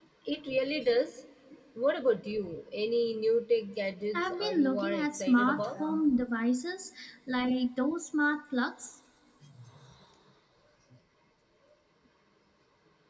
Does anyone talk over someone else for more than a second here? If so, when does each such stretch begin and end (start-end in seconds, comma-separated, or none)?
4.2-5.8